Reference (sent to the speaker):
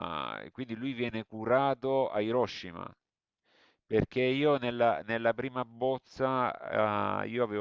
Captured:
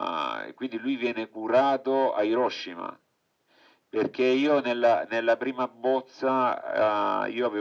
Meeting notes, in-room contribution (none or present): none